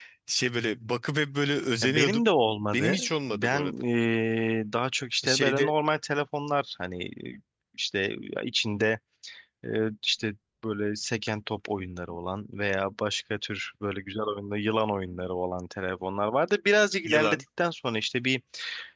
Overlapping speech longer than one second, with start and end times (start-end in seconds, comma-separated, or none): none